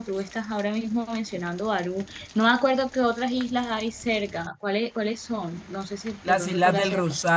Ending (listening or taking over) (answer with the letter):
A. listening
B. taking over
B